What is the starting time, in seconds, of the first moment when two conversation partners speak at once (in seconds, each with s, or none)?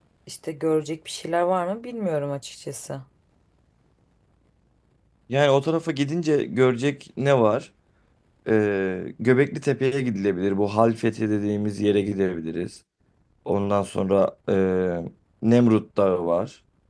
none